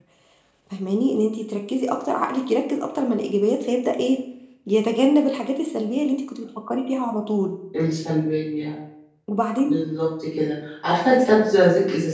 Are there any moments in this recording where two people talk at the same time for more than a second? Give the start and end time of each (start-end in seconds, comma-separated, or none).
none